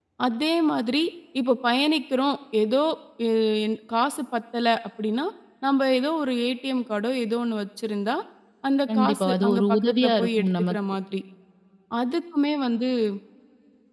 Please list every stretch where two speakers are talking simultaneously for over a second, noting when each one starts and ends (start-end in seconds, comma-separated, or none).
8.9-10.8